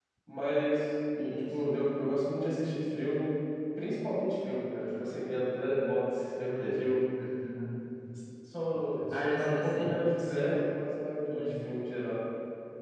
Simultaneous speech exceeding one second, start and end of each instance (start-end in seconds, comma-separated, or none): 9.1-10.6